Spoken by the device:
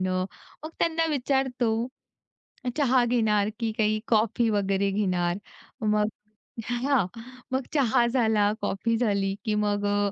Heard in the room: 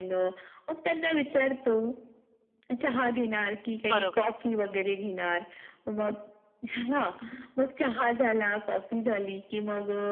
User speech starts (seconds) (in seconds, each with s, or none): 3.9 s